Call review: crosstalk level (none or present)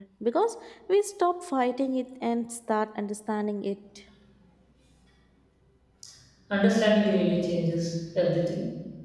none